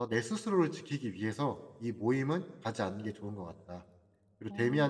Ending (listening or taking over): listening